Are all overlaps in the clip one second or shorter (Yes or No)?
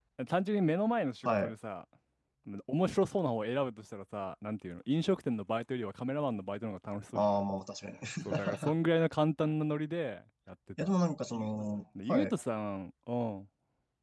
Yes